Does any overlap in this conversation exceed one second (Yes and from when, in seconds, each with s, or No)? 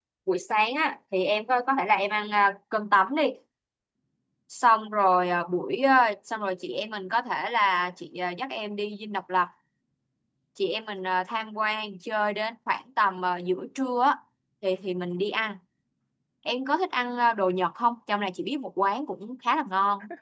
No